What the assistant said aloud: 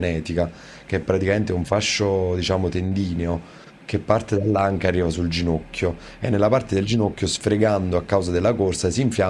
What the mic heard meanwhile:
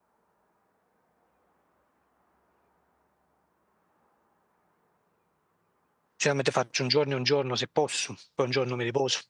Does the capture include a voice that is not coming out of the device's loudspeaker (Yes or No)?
Yes